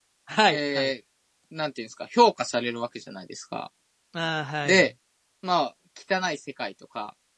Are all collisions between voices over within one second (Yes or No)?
Yes